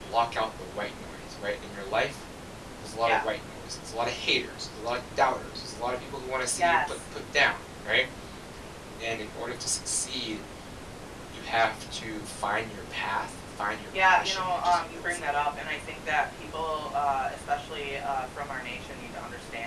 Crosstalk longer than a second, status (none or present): present